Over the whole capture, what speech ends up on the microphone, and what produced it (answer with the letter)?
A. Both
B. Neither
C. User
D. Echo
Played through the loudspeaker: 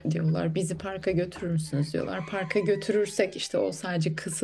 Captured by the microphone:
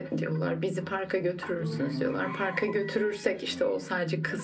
A